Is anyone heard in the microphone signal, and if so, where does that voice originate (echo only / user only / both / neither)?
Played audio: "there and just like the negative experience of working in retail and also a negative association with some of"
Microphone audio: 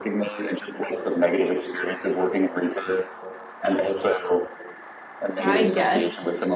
both